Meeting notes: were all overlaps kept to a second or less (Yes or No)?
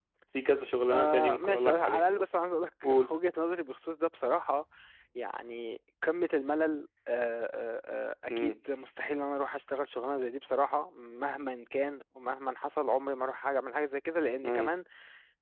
No